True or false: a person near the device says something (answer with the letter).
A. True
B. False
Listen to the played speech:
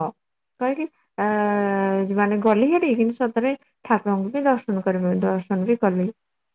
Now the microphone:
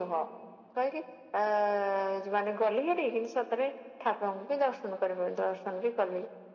B